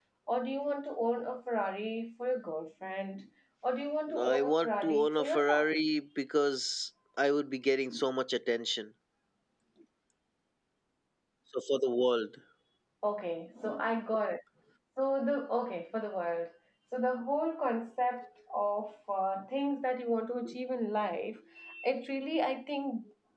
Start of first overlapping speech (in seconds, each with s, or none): 4.1 s